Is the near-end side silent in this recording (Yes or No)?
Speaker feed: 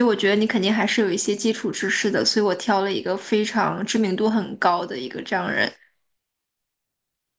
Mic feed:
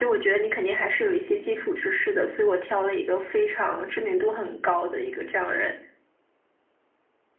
Yes